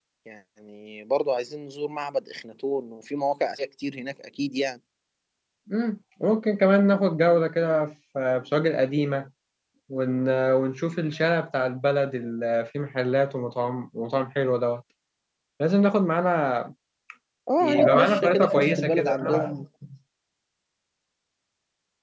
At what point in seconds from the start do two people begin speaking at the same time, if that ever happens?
18 s

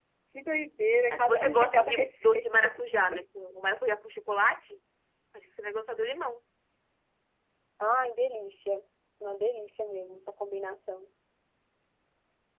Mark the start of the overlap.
1 s

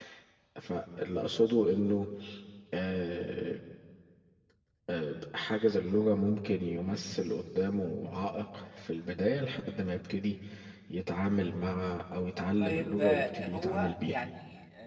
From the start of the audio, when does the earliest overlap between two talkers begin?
13 s

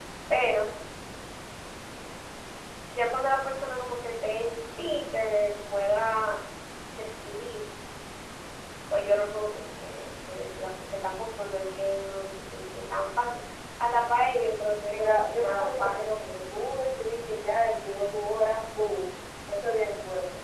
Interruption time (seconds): 15 s

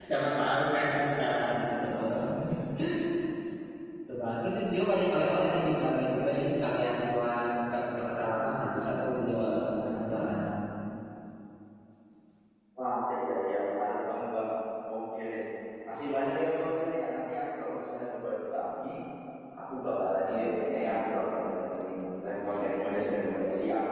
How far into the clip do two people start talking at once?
none

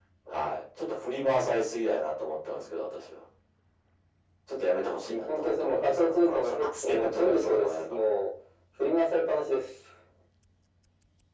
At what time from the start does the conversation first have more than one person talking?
5 s

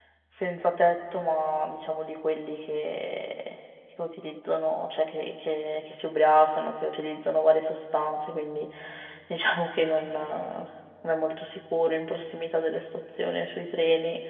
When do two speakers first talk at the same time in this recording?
none

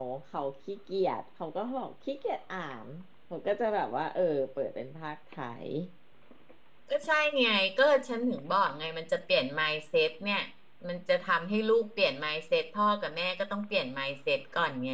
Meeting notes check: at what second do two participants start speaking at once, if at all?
none

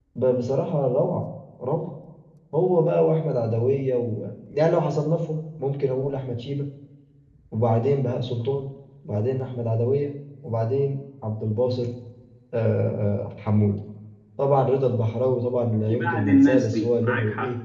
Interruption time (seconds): 16 s

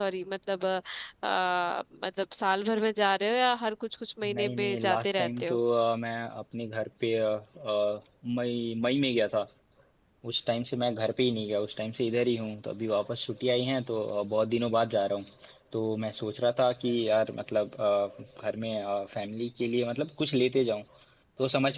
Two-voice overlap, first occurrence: 4 s

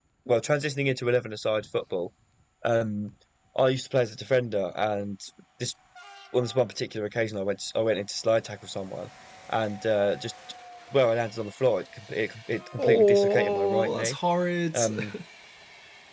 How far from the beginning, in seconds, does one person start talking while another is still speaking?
13 s

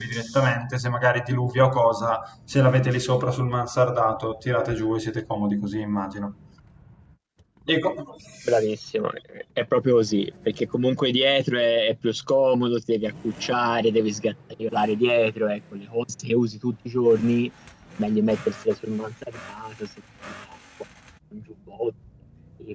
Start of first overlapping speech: none

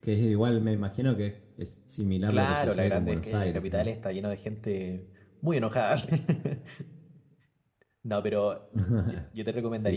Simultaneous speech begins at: 2 s

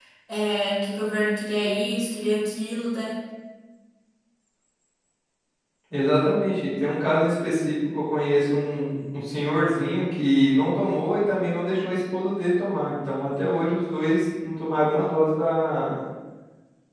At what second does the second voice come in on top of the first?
none

